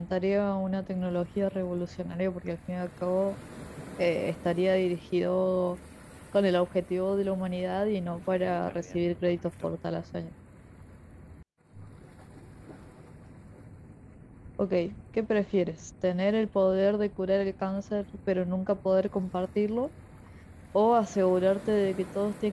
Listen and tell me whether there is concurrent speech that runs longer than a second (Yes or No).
Yes